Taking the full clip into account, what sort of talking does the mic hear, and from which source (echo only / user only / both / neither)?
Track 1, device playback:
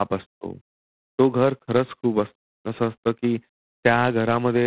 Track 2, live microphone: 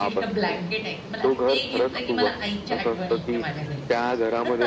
both